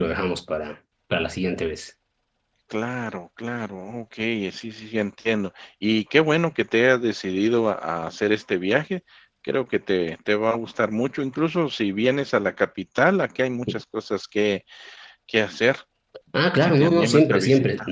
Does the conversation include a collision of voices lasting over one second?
Yes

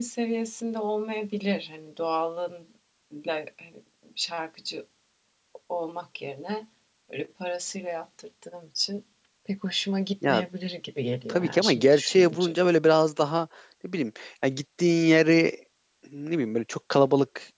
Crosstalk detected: Yes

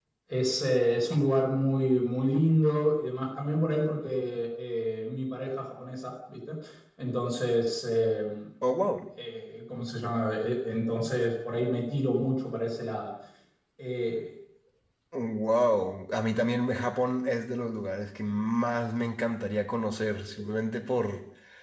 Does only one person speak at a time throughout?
Yes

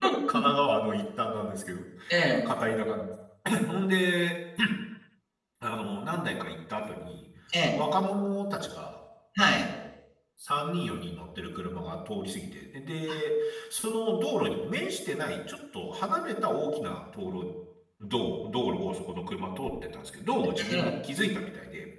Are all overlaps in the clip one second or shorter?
Yes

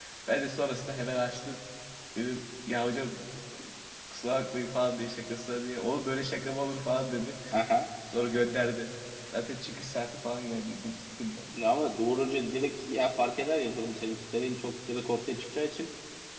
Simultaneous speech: No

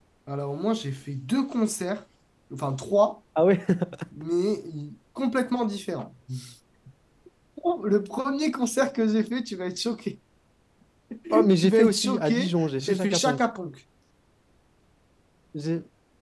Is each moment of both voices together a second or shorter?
No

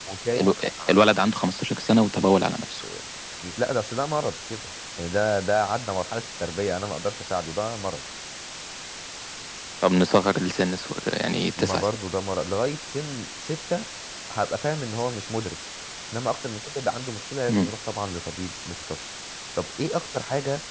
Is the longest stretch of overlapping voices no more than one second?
Yes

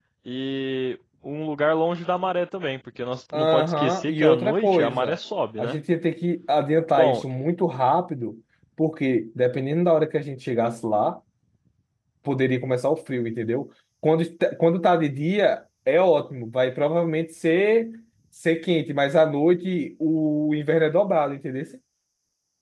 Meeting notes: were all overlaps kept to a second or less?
No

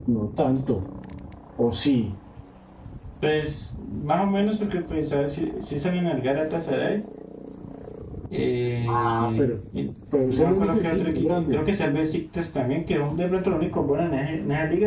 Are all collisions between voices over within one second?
No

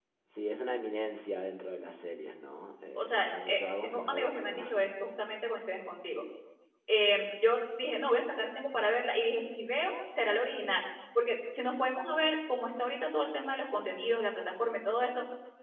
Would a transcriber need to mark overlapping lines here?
Yes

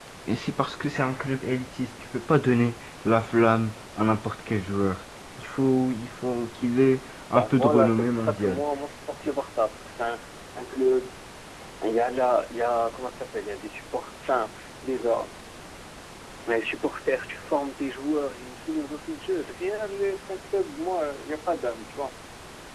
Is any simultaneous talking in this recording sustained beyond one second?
Yes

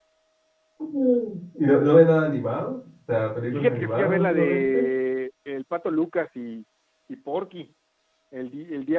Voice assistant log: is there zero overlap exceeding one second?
No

